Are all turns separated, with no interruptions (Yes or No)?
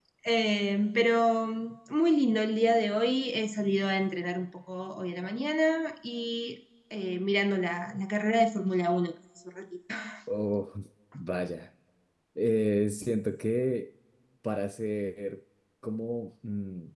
Yes